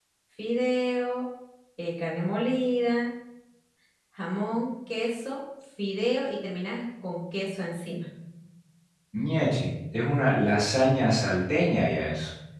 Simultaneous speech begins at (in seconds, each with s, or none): none